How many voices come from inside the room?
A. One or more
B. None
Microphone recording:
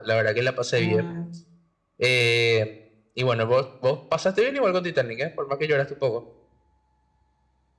A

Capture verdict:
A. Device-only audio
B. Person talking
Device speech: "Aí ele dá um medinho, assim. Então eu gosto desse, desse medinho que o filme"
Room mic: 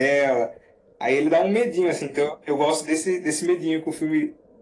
A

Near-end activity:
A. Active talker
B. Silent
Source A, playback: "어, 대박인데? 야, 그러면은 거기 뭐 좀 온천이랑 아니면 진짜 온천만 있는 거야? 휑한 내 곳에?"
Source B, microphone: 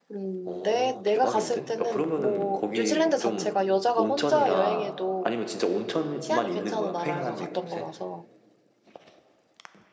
A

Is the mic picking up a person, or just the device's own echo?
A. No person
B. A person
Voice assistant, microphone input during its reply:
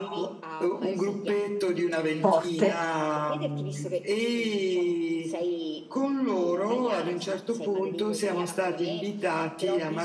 B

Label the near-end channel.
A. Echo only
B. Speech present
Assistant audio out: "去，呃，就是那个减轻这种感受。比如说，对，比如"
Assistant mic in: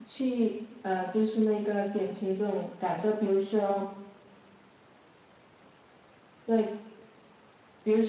A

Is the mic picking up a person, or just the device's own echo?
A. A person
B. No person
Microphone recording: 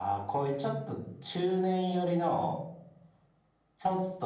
B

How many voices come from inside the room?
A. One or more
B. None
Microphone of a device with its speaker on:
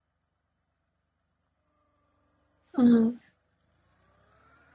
A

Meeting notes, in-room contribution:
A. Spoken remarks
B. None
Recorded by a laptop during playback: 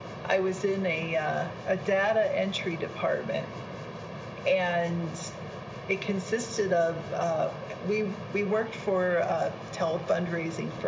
B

